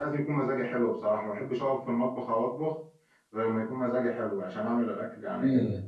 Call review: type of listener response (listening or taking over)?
taking over